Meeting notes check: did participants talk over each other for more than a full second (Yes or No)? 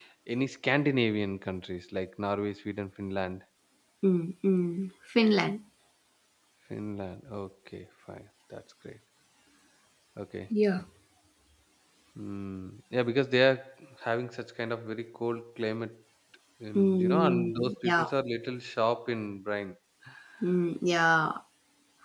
Yes